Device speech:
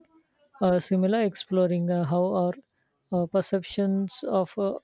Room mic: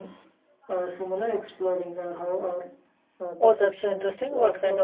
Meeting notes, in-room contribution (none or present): present